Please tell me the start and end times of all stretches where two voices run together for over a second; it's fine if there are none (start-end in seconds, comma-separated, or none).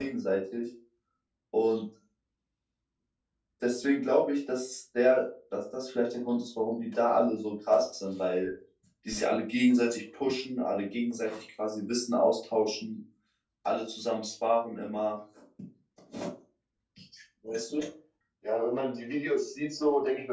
none